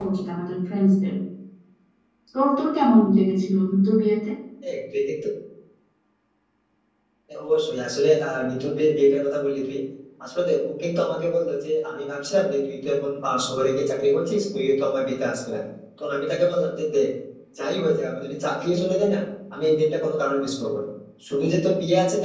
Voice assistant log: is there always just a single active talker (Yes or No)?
Yes